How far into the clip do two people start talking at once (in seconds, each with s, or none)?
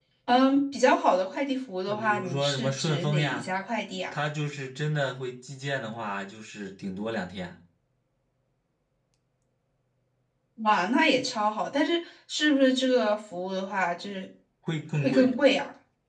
1.9 s